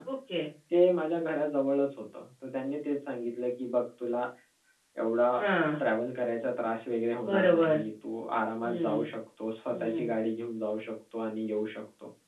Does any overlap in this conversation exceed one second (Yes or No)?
No